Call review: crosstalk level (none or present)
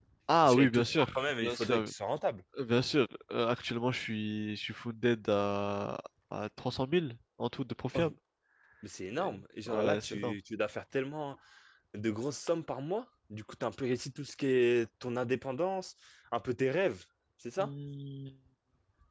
present